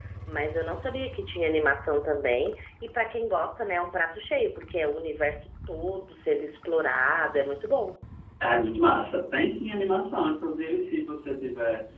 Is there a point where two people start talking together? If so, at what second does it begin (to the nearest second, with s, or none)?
none